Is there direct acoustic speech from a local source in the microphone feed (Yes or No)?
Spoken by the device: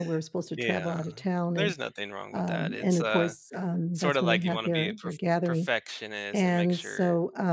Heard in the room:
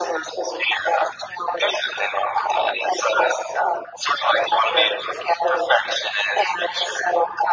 No